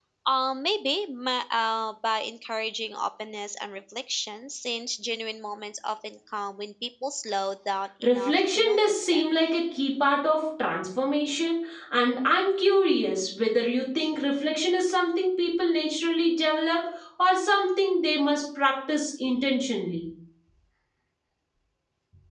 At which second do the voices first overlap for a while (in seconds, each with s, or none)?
8.0 s